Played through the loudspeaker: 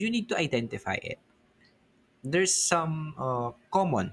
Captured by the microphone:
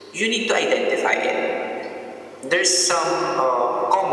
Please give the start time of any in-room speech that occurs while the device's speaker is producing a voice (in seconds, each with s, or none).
none